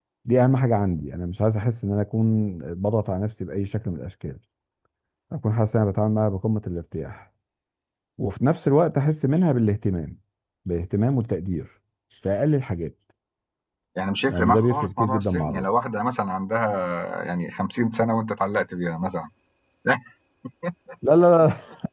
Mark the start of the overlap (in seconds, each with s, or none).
14.3 s